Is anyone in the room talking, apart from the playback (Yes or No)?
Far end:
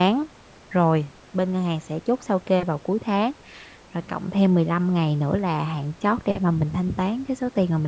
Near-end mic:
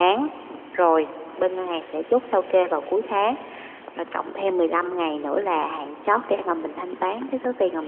No